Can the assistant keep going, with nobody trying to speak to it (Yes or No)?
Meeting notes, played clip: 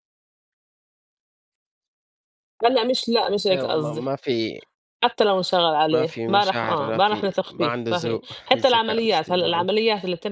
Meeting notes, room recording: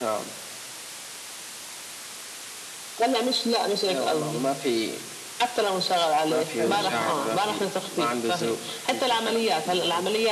No